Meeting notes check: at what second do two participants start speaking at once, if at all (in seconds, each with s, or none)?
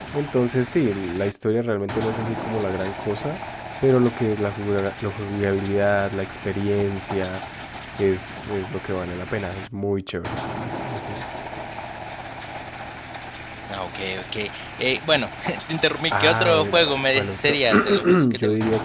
16.1 s